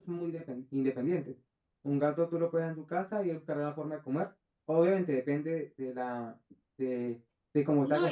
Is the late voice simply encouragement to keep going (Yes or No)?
No